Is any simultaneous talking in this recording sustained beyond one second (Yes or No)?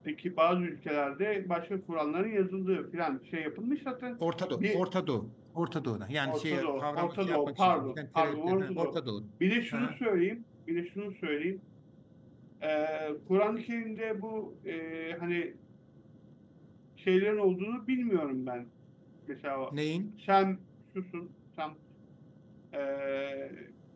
Yes